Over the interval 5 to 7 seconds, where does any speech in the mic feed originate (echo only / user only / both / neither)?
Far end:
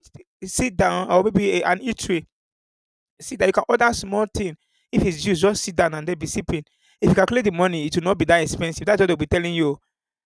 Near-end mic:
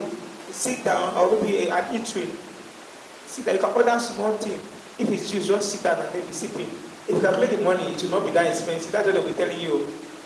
echo only